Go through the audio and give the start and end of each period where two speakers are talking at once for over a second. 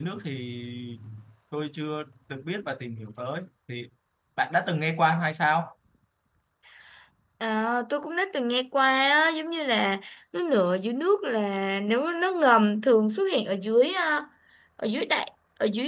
none

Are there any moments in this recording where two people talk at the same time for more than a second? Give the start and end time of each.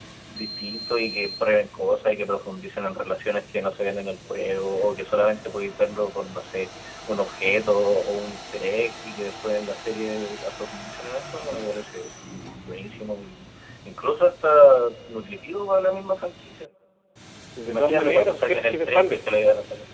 17.6-19.2

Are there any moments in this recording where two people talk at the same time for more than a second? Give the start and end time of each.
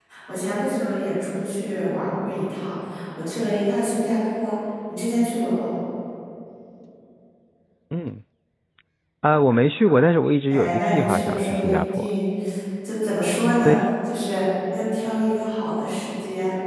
10.5-12.1

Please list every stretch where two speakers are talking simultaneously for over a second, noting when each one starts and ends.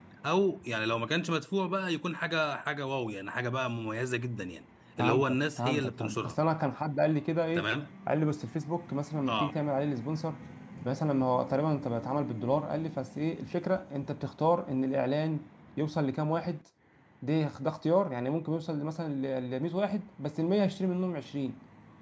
5.0-6.4

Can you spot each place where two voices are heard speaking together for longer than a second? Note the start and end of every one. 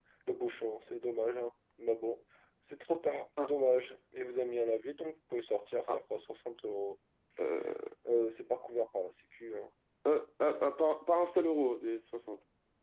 none

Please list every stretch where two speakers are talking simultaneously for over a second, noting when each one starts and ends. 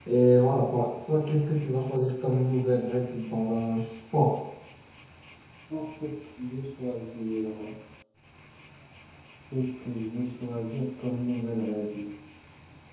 none

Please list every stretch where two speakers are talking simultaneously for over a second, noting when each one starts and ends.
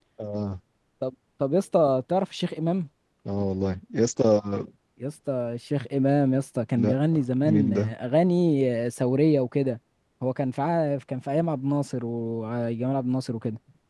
none

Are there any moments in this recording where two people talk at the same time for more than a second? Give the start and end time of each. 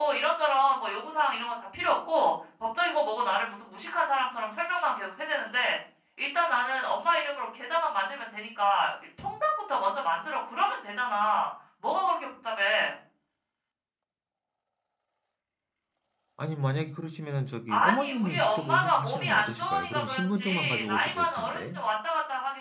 17.7-21.8

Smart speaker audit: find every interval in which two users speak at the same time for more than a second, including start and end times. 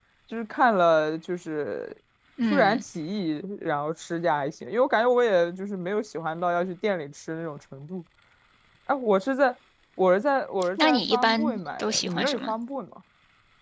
10.8-12.5

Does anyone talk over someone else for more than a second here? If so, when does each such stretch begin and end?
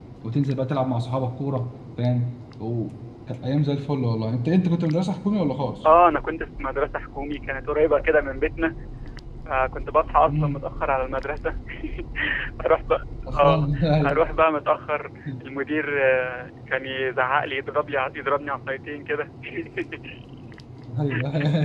none

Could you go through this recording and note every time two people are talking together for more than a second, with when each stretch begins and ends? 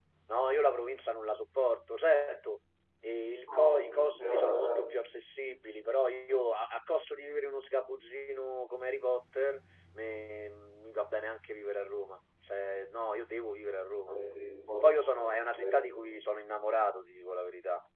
3.5-4.7, 14.8-16.1

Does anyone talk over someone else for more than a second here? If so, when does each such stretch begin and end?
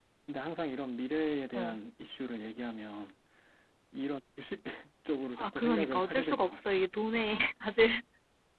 5.4-6.8

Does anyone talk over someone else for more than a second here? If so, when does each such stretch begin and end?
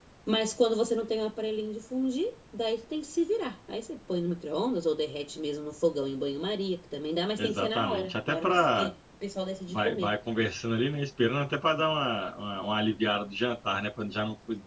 7.4-8.9

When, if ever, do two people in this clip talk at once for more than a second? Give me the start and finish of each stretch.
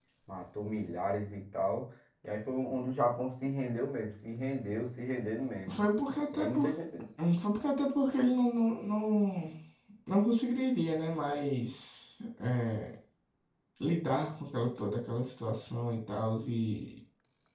none

